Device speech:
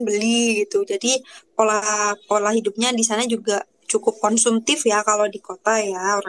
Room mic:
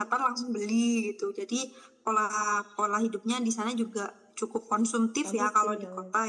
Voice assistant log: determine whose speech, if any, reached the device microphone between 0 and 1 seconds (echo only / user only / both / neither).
echo only